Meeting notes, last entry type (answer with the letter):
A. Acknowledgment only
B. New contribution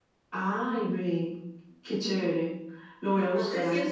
B